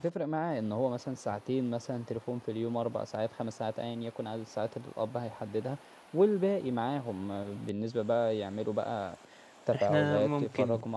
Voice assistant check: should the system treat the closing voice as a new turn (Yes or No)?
No